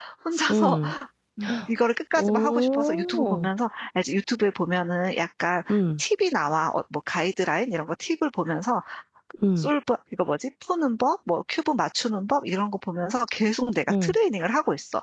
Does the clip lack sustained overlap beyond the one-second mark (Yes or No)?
No